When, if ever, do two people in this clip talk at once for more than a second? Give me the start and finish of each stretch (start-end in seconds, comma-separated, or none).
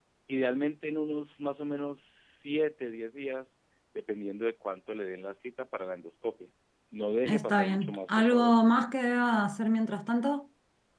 7.2-8.5